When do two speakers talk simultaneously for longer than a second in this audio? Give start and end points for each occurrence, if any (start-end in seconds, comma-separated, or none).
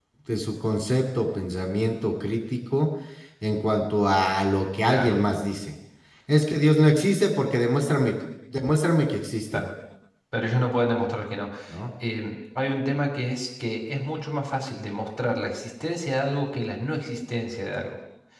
none